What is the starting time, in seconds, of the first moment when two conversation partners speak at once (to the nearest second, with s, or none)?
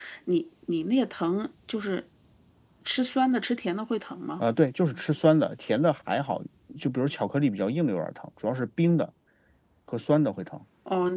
none